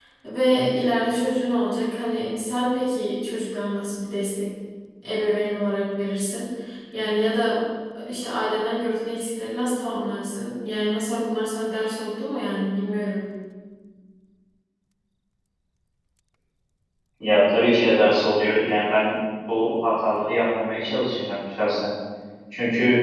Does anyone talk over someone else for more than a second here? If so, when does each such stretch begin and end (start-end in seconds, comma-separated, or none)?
none